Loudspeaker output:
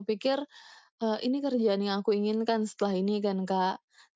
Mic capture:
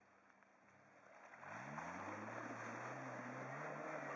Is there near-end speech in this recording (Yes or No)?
No